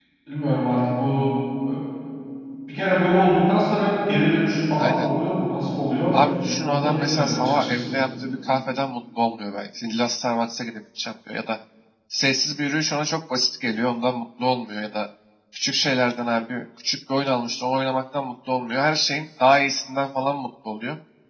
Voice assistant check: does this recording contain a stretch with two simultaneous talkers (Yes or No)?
Yes